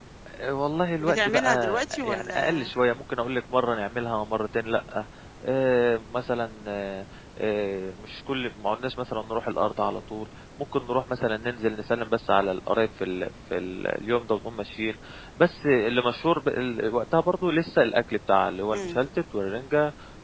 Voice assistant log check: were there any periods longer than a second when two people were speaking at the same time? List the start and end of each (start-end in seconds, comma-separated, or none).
1.0-2.7